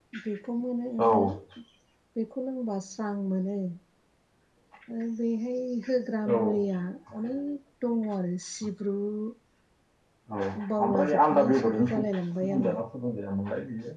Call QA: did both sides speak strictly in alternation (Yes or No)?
No